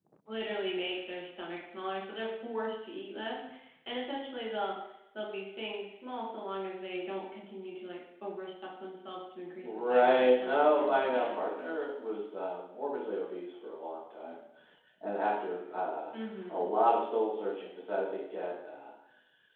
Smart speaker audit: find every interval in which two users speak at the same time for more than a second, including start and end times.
9.6-11.3

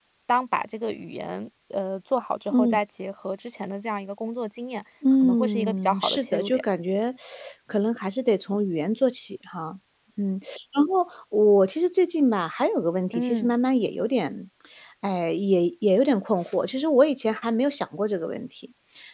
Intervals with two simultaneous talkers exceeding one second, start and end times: 5.2-6.6

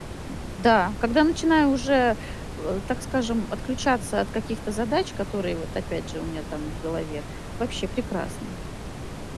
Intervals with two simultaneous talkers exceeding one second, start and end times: none

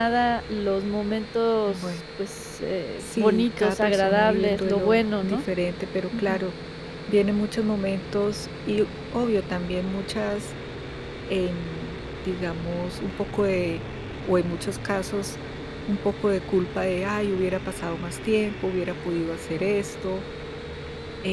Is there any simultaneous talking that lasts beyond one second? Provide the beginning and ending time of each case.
3.0-5.4

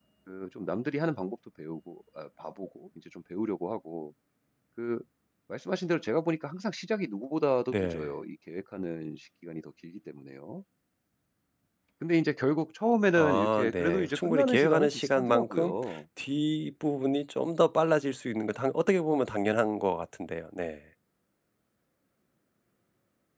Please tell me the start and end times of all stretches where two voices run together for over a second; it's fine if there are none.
13.2-15.8

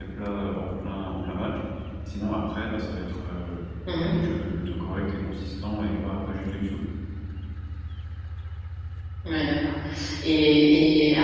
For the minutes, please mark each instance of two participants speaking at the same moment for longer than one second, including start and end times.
none

